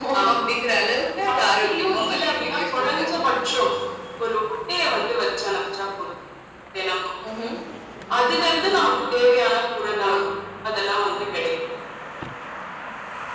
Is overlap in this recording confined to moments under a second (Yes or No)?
No